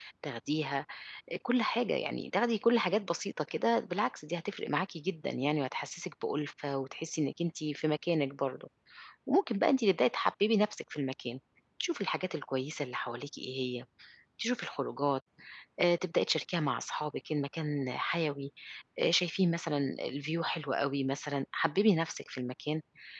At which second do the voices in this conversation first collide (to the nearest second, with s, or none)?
none